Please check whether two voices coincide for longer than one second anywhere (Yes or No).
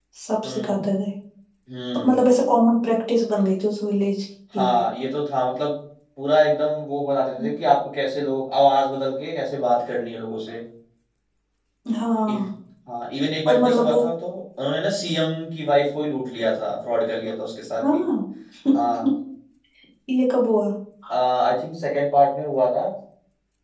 No